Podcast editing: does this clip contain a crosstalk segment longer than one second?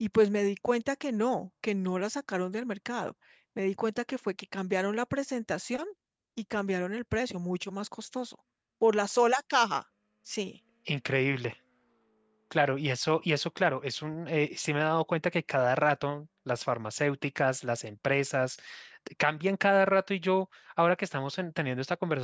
No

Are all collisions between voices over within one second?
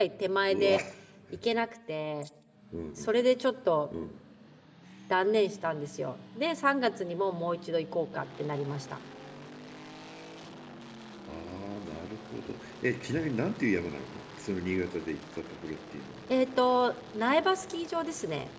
Yes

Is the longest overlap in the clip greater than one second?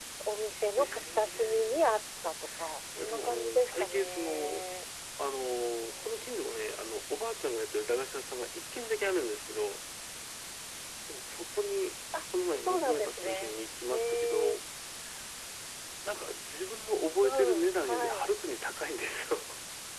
Yes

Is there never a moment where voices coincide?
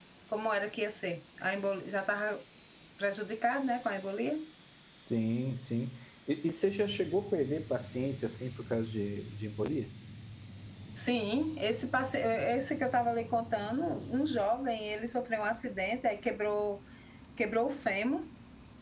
Yes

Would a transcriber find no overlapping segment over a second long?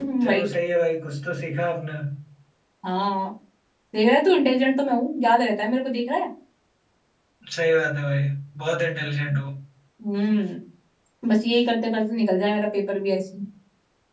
Yes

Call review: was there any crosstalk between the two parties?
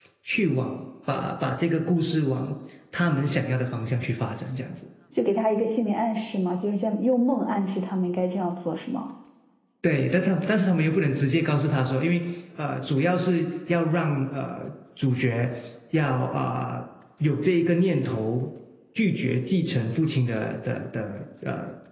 No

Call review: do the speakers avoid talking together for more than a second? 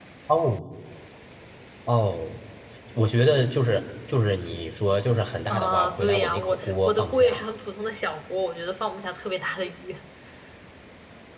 No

